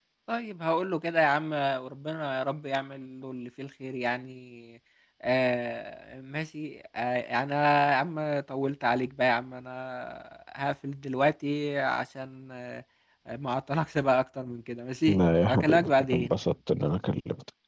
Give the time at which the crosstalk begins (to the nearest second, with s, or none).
15 s